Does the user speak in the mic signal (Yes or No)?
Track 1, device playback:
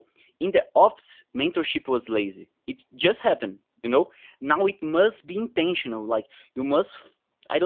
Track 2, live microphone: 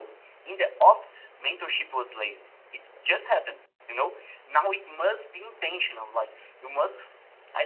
No